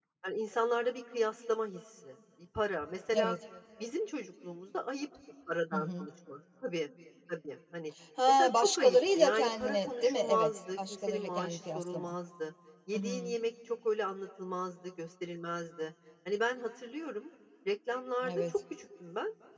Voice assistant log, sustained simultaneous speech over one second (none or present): present